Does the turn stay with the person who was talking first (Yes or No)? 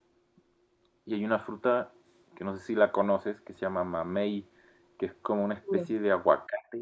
Yes